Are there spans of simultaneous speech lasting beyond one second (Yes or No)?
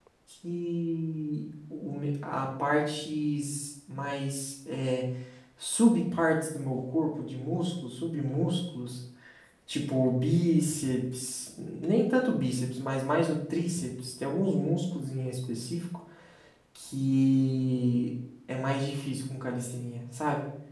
No